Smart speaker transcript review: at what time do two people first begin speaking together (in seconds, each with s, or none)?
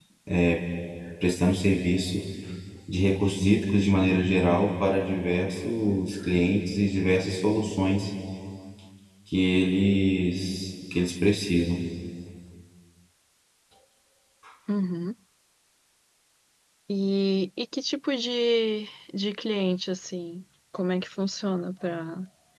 none